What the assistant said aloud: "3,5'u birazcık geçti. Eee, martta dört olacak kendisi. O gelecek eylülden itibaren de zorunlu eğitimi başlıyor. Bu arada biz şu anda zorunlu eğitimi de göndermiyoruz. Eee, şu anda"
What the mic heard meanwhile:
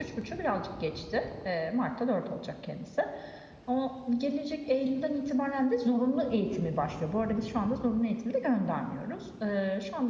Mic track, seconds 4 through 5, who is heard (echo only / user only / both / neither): echo only